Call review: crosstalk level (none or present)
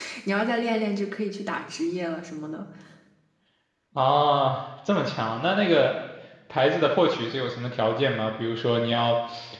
none